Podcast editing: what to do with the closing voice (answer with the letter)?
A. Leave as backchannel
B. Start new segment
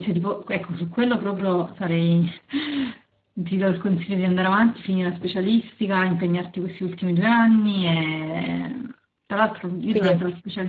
A